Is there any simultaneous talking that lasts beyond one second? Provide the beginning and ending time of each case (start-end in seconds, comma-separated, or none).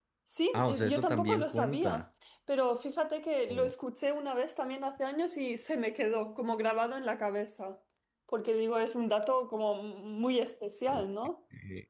0.5-2.0